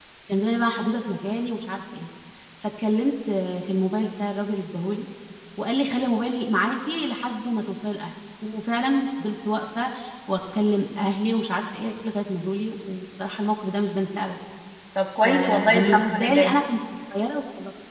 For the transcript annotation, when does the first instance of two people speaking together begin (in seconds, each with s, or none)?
15.2 s